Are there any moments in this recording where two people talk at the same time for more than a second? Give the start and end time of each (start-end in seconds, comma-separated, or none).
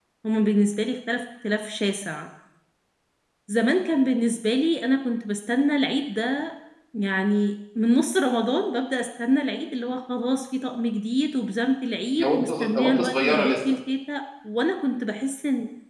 12.2-13.5